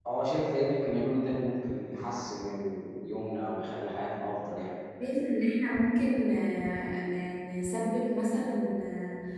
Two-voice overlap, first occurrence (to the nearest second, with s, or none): none